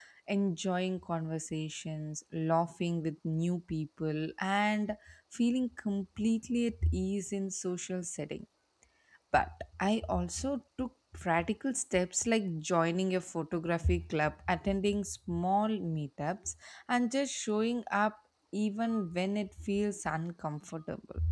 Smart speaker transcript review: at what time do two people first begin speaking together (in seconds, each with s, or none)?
none